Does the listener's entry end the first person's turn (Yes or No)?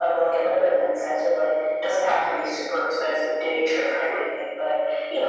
No